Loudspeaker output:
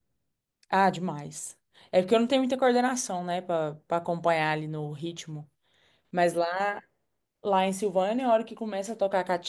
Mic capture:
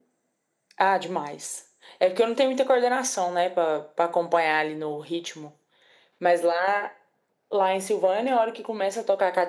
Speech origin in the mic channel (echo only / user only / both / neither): echo only